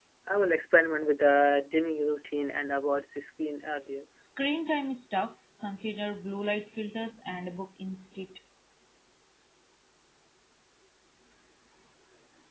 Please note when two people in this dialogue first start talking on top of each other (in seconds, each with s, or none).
none